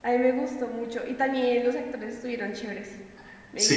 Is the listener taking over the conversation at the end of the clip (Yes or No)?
Yes